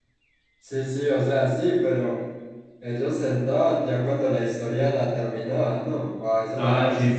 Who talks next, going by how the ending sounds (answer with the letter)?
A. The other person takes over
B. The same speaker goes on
A